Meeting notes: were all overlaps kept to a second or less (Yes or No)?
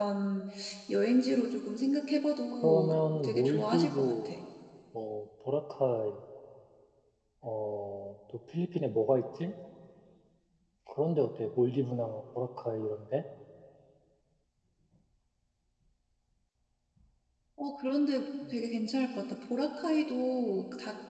No